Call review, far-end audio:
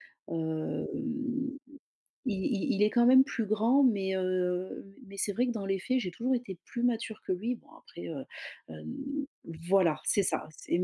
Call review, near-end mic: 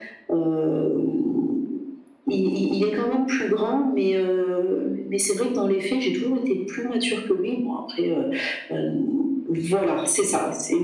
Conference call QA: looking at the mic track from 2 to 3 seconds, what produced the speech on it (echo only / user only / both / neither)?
echo only